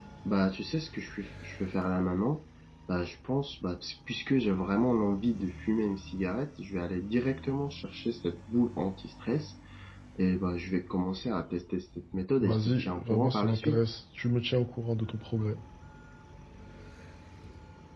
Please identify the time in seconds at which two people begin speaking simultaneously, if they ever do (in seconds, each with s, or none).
12.4 s